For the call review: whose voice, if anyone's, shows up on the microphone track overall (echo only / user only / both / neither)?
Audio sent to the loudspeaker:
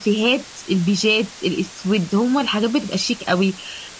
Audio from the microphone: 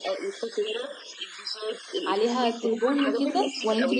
both